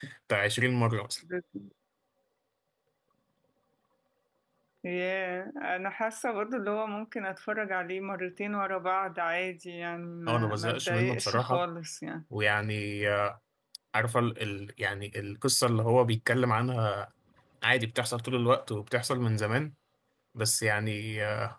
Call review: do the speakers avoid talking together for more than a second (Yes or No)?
No